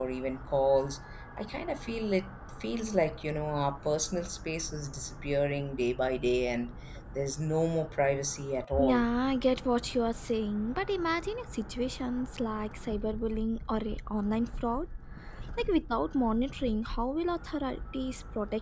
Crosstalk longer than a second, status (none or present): none